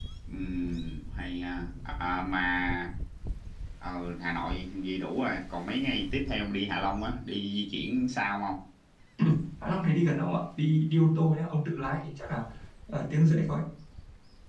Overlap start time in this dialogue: none

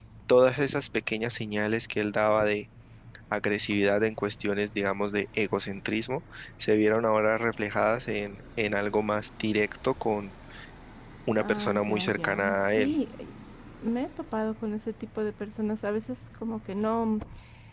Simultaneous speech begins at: 11.4 s

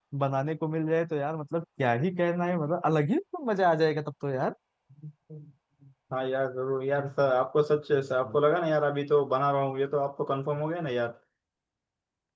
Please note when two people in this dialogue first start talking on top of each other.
none

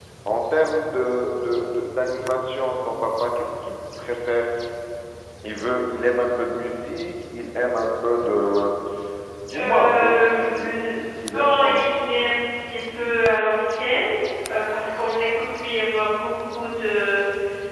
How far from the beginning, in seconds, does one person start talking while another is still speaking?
9.6 s

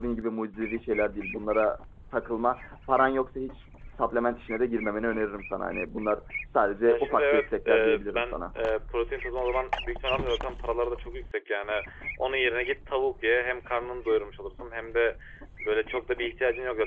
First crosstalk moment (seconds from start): 6.8 s

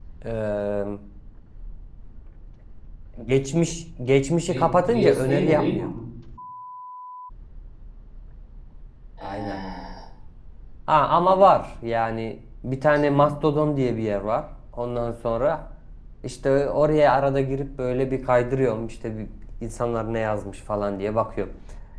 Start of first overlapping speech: 4.5 s

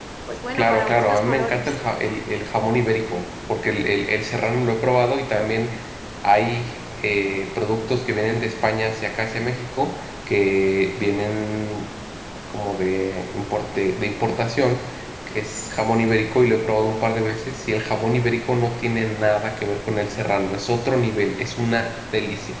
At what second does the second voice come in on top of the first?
0.5 s

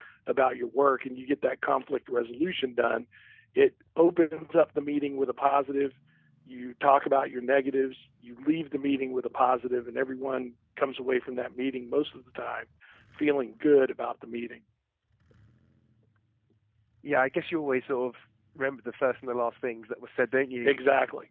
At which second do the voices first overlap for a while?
none

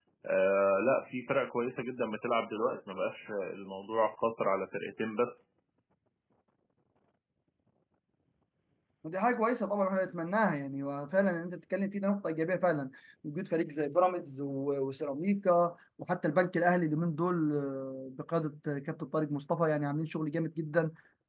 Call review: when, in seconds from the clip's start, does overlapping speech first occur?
none

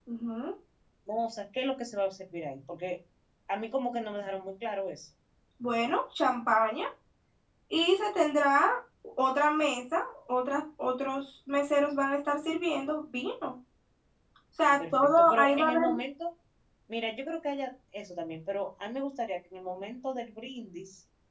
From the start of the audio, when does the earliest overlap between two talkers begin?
14.6 s

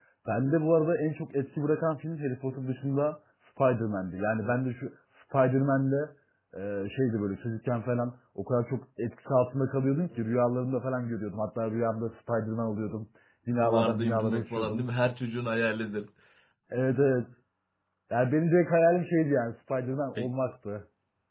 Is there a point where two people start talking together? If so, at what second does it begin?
13.6 s

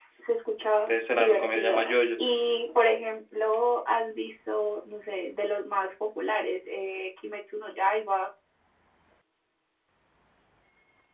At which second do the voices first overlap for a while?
0.9 s

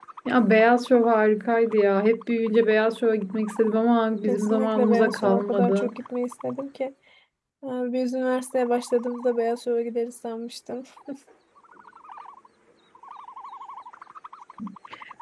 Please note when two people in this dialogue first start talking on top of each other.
4.3 s

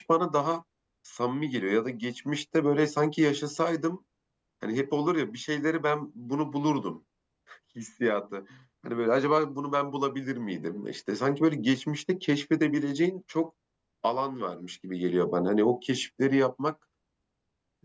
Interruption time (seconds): none

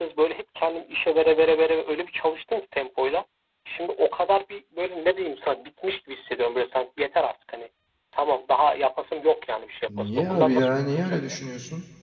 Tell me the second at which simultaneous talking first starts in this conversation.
9.9 s

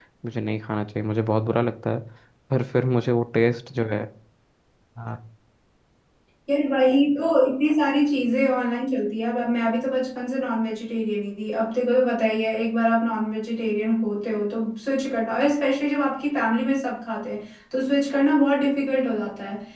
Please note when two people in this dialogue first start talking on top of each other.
none

